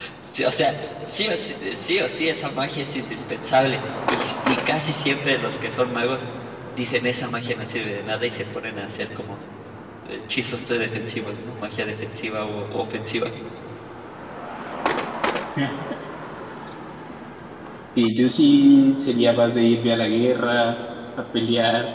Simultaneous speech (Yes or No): No